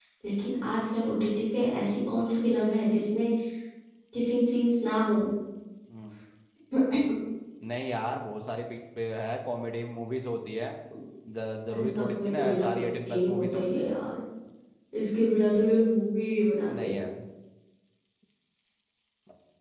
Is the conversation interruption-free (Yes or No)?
No